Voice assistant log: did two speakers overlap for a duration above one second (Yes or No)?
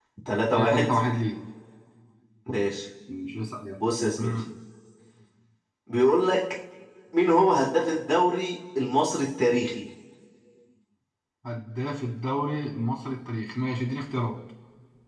No